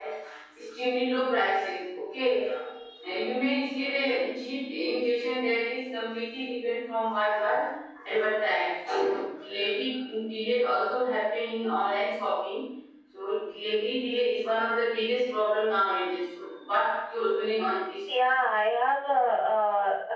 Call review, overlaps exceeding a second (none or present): none